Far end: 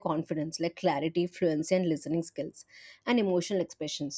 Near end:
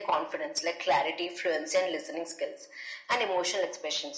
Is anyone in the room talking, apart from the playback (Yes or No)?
No